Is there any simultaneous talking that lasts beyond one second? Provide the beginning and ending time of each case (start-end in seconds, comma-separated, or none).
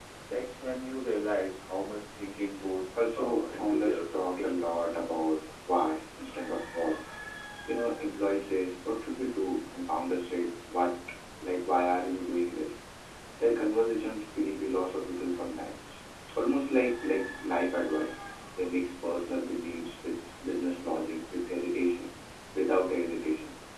3.1-4.5